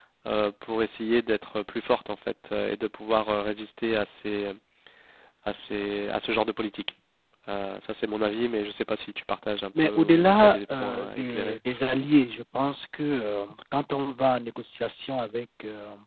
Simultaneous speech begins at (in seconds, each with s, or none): 9.8 s